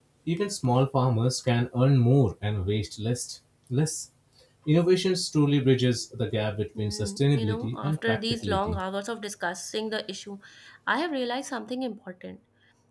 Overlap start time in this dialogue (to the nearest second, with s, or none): 7 s